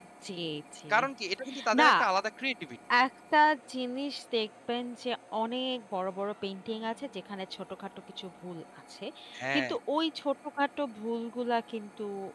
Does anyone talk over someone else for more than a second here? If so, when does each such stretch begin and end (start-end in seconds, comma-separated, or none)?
none